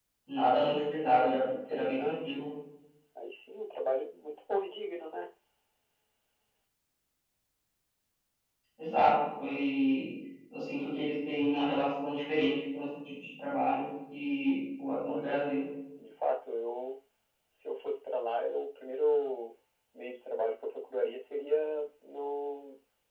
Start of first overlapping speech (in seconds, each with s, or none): 1.1 s